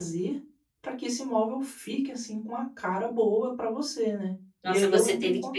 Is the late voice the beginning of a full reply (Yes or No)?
Yes